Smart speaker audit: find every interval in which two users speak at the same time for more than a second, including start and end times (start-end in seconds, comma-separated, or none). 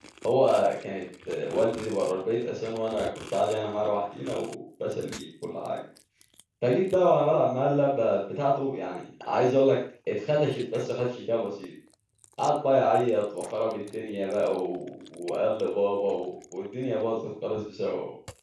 none